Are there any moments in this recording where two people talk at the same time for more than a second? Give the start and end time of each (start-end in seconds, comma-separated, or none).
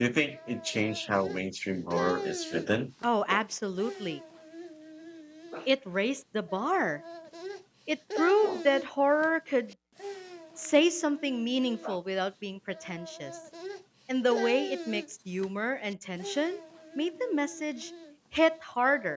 none